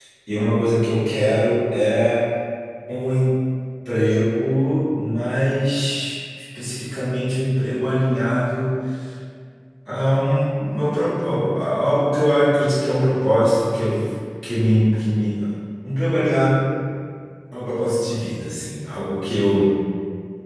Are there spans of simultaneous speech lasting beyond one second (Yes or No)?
No